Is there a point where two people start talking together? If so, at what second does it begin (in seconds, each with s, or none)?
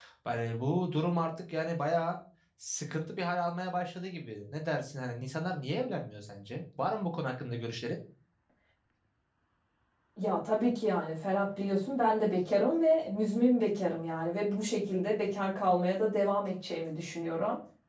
none